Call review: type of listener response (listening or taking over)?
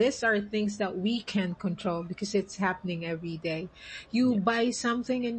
listening